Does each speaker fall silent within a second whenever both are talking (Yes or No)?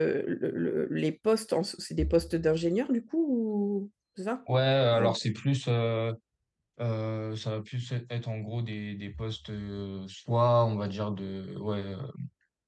Yes